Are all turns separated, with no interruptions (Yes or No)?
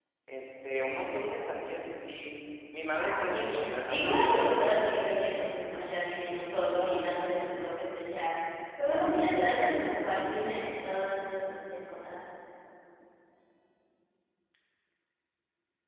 No